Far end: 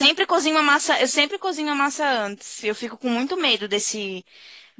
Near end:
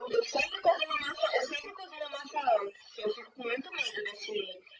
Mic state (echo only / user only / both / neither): echo only